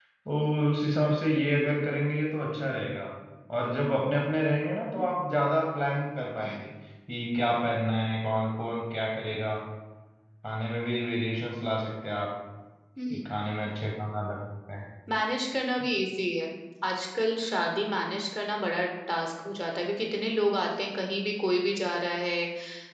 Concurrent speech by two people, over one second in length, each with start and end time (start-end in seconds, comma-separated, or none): none